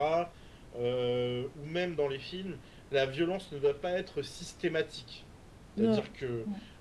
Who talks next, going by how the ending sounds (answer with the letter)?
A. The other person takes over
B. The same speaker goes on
B